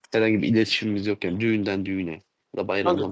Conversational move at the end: taking over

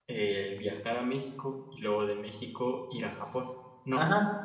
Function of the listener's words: taking over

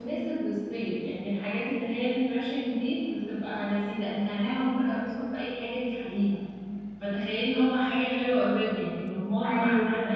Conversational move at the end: taking over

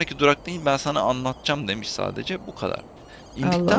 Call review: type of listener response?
listening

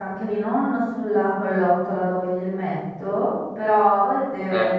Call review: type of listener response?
listening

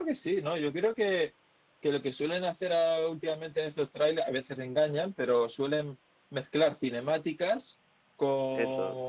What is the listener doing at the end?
listening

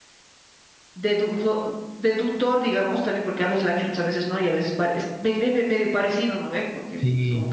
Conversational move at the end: listening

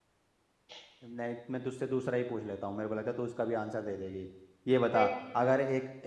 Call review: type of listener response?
listening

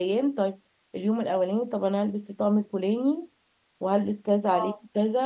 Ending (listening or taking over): listening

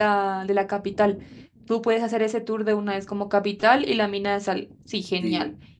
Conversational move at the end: taking over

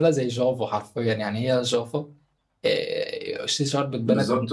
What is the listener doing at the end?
taking over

